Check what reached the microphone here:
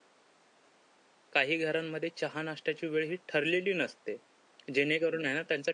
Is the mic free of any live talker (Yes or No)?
No